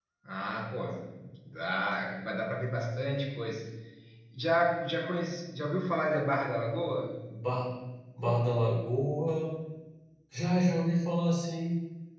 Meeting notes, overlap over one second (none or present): none